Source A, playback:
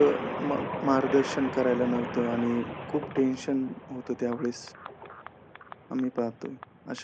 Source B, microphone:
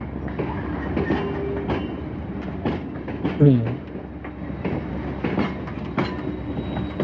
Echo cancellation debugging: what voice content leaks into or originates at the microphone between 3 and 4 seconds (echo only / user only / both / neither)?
user only